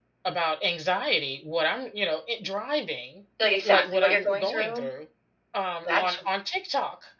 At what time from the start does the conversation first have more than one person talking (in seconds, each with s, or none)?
3.6 s